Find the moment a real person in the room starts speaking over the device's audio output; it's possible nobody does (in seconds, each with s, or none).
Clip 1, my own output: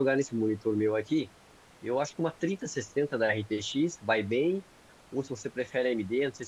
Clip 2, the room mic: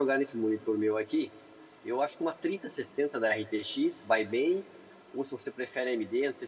none